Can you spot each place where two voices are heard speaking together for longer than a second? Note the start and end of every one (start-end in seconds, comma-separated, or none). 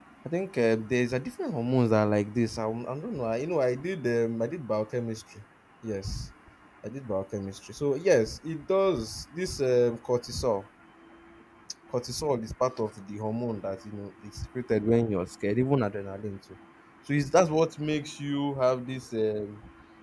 none